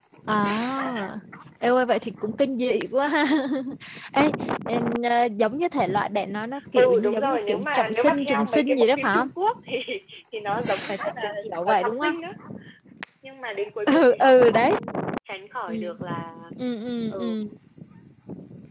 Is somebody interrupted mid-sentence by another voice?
Yes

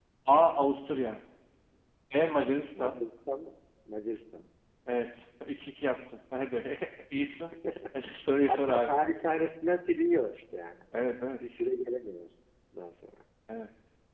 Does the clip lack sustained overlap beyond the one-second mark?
Yes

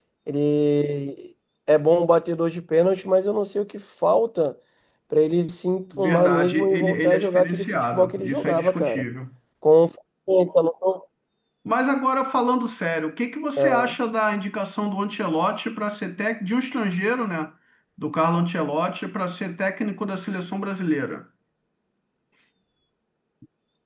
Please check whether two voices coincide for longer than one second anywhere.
Yes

